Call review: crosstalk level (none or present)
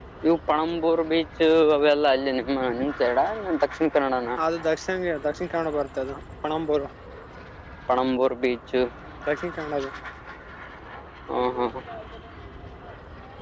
none